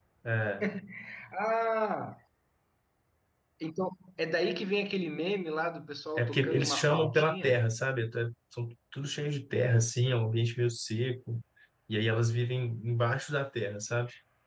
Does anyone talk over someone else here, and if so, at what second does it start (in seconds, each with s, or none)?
6.2 s